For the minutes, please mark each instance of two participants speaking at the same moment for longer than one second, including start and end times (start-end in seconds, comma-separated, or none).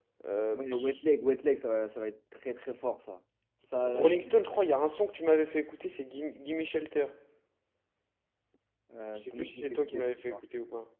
9.1-10.4